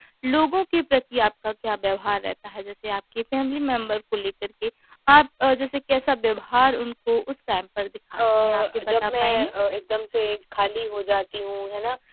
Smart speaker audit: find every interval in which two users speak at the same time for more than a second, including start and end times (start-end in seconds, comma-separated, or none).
8.2-9.5